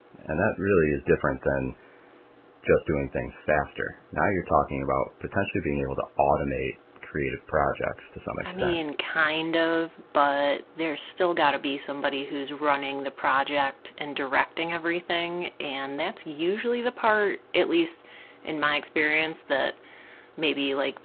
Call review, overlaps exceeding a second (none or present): none